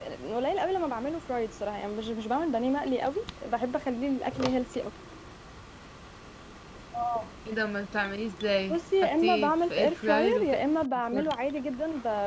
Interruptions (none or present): present